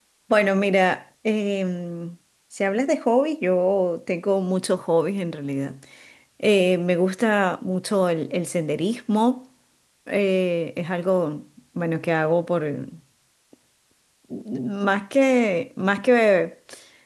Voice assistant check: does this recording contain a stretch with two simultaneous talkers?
No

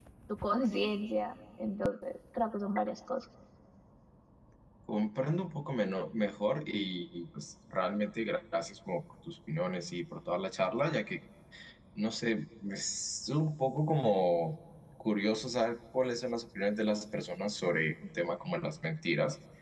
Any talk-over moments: No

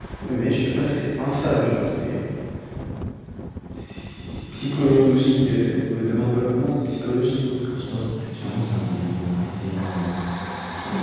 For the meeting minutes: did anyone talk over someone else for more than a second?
No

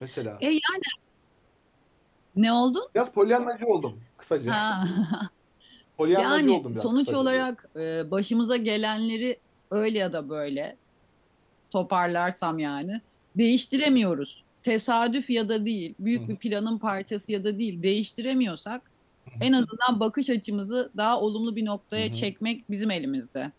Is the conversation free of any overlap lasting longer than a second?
No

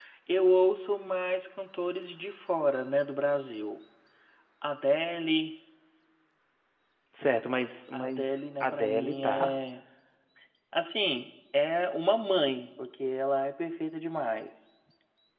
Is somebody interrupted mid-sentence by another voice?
Yes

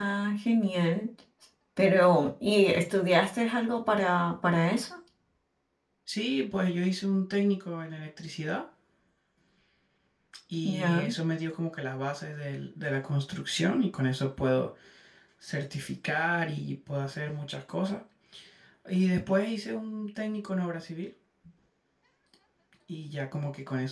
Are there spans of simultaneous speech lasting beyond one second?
No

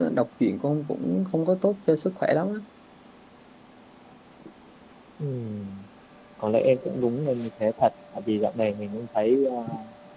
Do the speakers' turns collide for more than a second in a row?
No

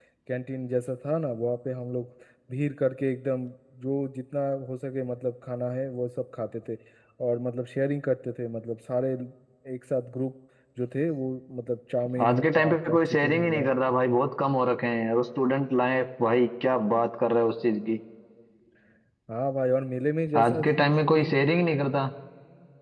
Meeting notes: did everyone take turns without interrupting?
No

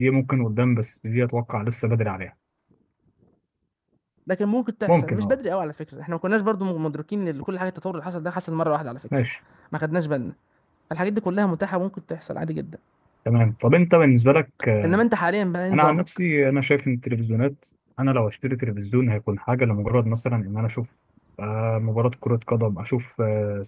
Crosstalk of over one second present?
No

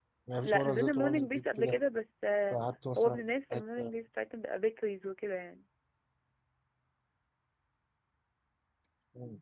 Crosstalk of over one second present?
Yes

